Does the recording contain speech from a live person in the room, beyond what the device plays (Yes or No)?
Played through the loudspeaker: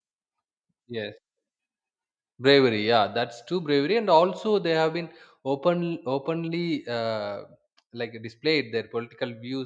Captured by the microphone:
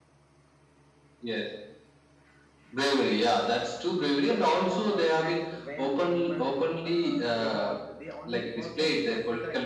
Yes